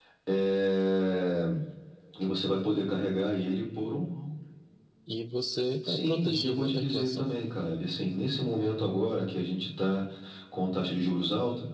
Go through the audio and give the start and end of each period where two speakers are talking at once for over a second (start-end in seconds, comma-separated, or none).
5.9-7.3